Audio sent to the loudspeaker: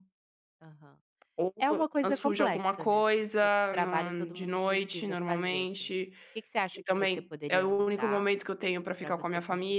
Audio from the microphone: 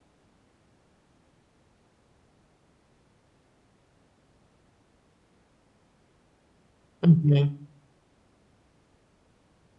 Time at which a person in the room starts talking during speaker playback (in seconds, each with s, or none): 7.1 s